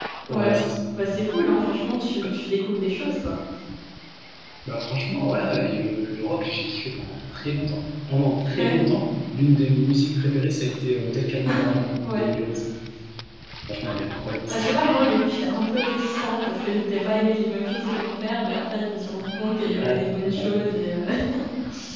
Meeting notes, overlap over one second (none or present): none